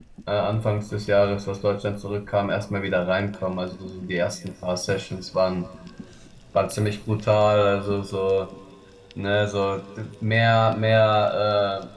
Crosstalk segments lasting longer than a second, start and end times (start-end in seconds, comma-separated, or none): none